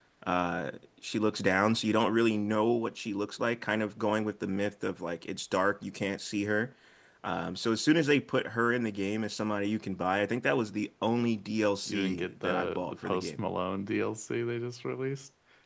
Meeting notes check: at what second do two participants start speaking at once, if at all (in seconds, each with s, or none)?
11.9 s